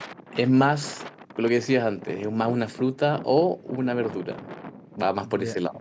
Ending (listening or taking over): taking over